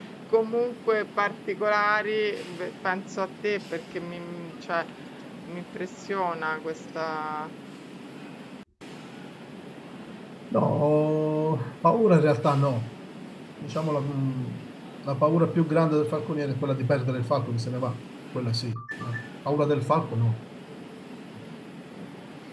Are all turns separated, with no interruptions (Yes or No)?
Yes